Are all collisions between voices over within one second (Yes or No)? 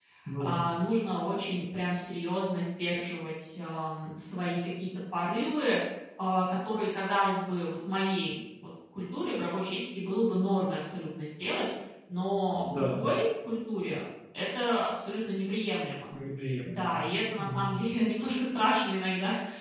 Yes